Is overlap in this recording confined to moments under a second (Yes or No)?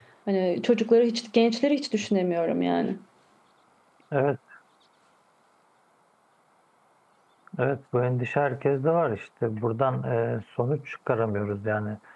Yes